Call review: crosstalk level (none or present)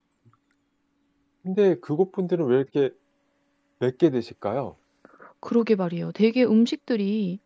none